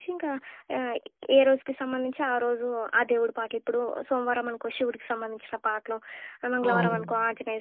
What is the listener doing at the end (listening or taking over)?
listening